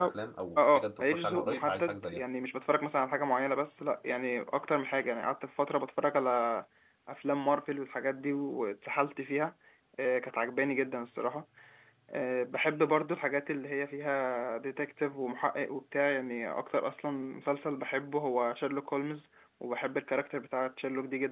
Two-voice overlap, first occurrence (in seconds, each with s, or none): 0.6 s